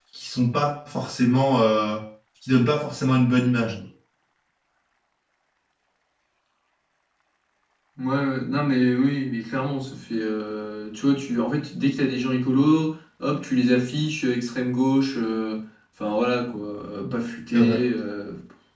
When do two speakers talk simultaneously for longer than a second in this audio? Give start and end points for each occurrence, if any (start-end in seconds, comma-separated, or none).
none